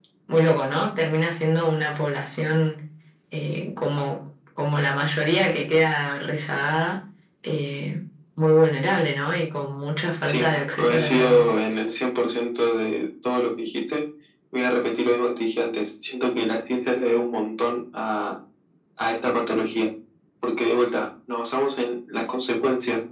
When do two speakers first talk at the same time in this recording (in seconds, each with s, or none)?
10.3 s